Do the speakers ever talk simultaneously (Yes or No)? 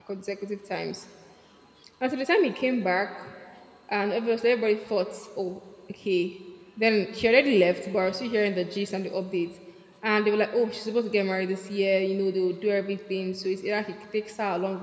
No